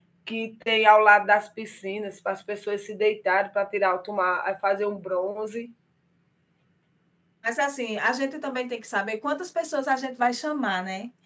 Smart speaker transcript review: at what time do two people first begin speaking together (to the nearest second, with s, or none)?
none